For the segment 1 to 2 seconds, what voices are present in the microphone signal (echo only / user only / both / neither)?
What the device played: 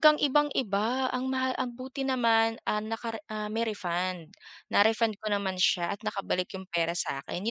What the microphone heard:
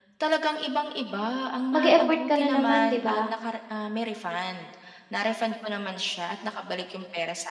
both